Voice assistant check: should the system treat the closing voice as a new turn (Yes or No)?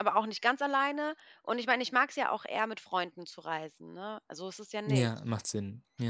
Yes